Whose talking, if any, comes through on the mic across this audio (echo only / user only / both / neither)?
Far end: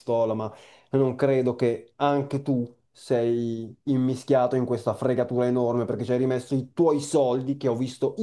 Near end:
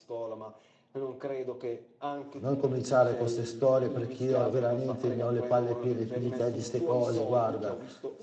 both